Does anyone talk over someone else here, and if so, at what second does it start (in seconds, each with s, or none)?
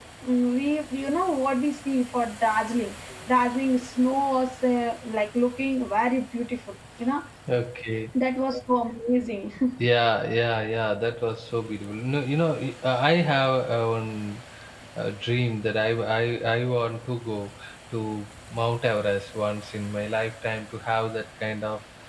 none